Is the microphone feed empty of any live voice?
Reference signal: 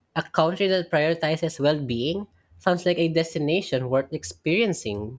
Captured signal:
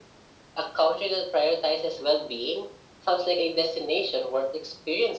Yes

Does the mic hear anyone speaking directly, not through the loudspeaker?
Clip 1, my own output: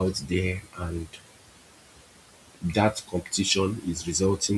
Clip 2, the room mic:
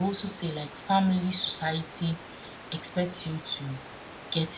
Yes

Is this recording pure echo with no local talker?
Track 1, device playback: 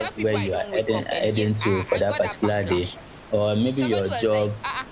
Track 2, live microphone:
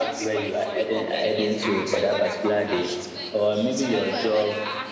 No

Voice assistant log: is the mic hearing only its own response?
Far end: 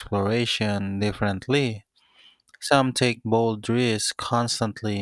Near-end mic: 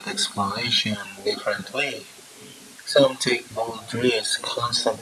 Yes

